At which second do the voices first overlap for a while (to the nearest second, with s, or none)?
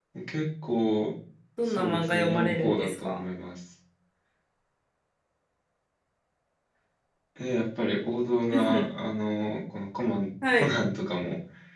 2 s